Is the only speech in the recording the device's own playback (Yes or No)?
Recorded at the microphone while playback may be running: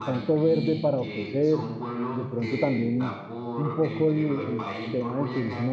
No